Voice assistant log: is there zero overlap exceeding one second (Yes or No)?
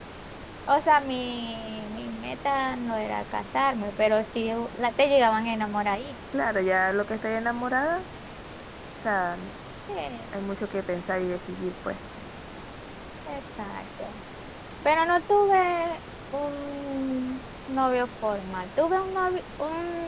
Yes